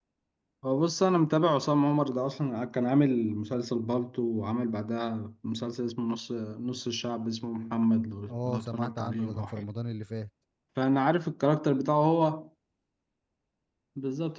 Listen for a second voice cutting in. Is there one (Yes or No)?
Yes